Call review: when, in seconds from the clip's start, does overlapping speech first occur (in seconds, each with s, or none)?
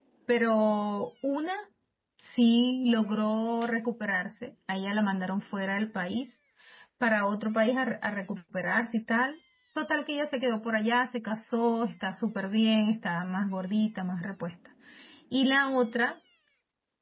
none